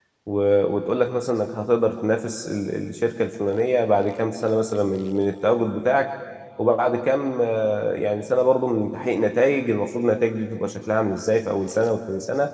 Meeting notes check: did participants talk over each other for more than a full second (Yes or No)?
No